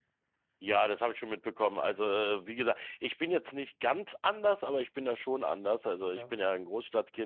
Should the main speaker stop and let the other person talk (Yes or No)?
No